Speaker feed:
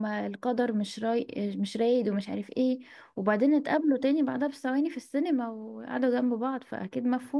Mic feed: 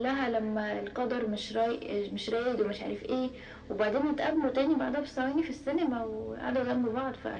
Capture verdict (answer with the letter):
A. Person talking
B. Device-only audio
B